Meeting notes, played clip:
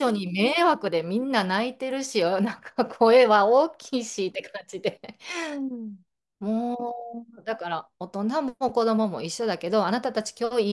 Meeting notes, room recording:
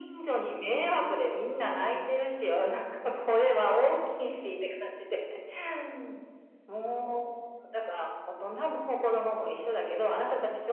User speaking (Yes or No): No